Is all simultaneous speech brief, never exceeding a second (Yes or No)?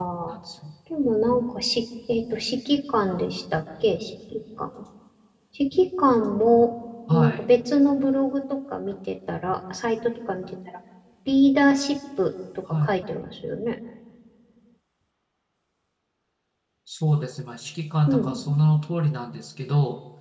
Yes